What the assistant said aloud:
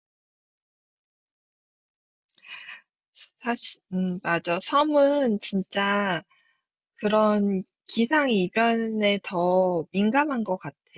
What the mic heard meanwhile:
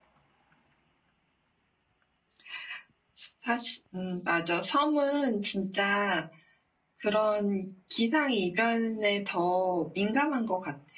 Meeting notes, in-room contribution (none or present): none